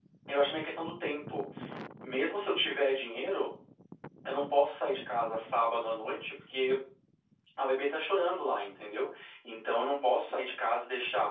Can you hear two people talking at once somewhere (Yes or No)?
No